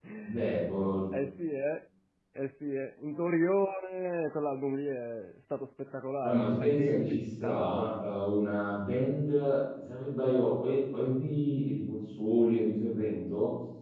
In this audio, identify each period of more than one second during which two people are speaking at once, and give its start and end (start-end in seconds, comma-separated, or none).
6.2-7.9